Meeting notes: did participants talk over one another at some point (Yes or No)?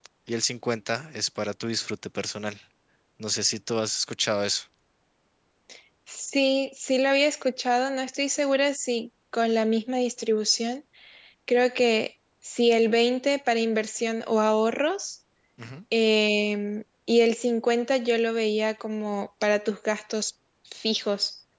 No